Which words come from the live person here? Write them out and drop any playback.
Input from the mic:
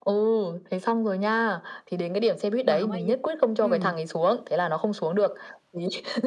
Mà hổng ai giúp. Ừm.

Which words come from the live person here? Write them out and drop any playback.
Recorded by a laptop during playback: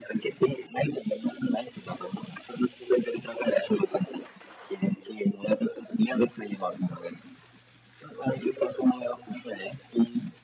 none

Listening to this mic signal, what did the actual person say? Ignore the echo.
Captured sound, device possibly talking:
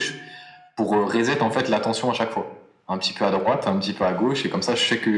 none

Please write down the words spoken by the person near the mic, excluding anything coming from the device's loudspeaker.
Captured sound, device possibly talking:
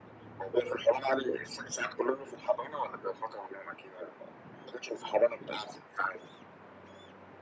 none

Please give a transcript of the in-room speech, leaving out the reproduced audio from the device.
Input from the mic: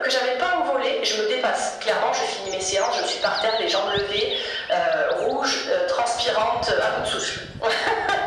none

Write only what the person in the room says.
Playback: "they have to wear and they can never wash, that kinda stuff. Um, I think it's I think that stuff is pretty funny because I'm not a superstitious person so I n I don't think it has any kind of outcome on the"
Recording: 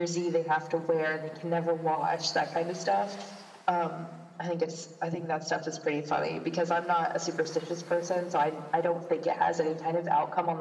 none

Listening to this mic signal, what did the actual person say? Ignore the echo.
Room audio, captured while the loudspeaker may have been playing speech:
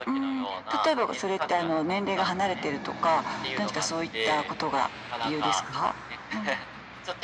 none

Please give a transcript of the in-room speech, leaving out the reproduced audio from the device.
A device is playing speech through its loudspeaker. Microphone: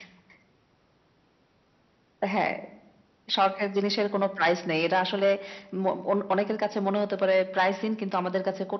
none

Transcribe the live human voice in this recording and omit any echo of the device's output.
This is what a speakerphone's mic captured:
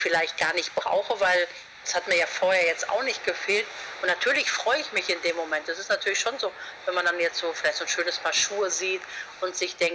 none

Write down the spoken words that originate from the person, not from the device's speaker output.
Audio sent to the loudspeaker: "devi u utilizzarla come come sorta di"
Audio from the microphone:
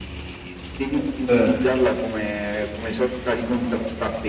Uhm uhm

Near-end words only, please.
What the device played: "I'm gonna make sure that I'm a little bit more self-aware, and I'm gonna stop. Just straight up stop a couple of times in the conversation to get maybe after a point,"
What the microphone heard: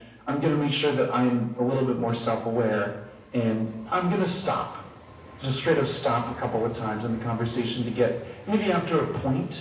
none

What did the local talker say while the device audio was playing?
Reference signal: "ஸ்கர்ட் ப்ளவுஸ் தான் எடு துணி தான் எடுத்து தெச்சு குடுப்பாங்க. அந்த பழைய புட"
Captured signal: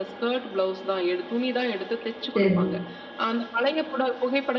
சேரி.

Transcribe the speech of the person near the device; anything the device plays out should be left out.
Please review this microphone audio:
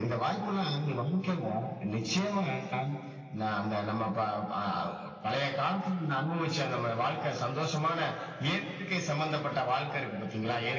none

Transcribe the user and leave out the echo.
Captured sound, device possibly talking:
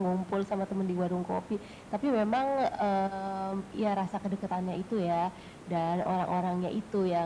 none

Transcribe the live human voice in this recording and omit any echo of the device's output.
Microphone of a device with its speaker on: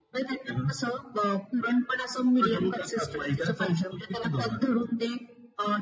none

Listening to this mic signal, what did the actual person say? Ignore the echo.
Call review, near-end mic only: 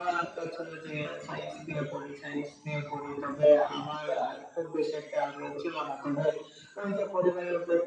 none

